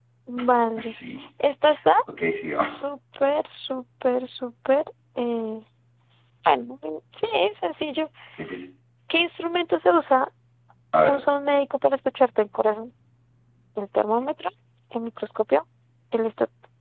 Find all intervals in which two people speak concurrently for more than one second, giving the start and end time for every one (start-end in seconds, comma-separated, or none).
none